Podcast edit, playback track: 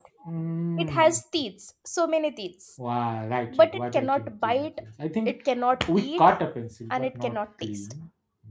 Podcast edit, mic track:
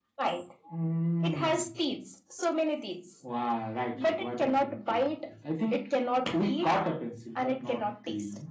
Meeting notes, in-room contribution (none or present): none